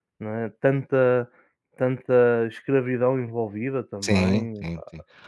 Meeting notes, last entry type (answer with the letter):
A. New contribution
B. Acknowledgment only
A